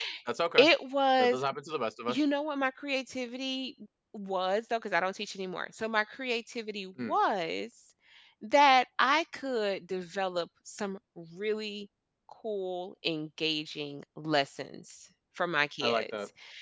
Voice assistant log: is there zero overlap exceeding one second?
Yes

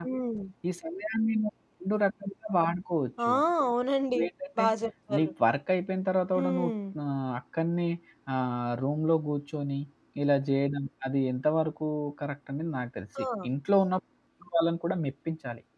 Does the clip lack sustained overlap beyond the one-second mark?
Yes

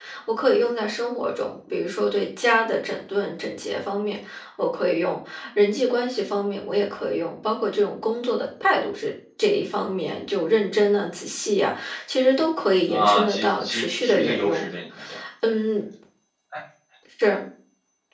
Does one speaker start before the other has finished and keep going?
Yes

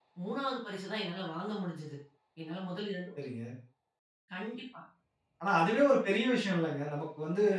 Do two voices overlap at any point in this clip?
No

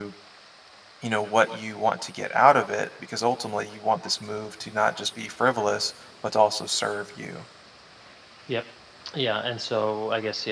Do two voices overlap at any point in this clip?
No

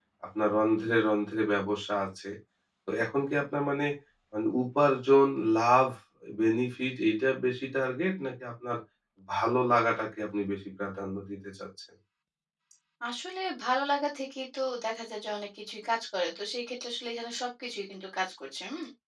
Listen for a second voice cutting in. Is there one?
No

